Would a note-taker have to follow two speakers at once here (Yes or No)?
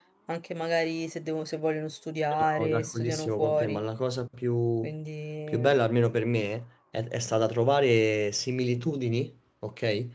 Yes